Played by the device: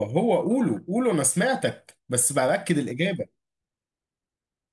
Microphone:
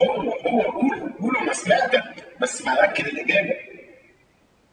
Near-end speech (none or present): none